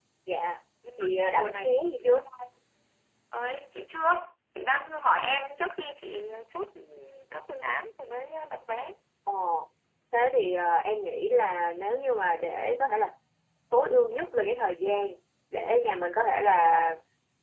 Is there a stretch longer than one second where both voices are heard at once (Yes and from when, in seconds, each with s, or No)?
Yes, from 1.0 s